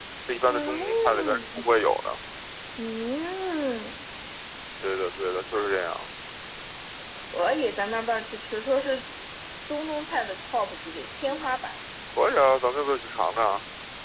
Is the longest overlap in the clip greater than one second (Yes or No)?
Yes